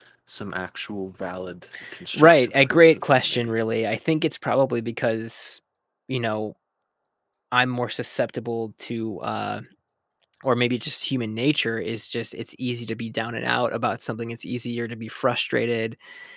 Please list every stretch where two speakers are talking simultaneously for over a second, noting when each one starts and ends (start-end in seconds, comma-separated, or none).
2.1-3.5